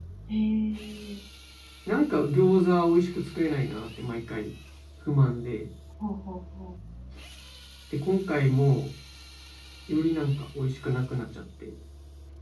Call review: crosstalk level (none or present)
none